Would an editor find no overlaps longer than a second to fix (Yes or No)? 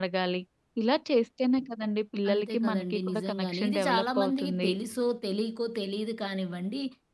No